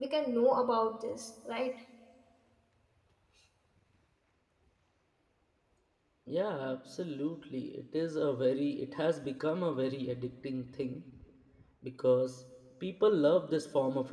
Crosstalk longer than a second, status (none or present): none